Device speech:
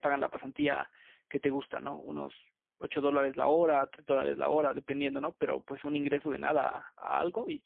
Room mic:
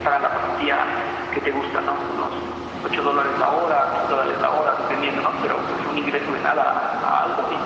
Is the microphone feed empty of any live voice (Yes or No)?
Yes